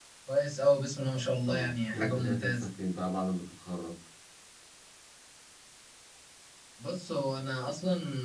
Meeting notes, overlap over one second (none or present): present